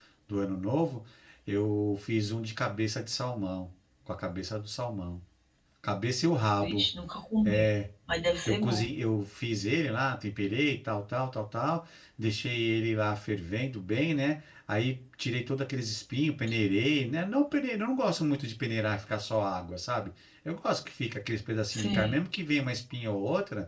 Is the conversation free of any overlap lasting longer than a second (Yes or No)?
Yes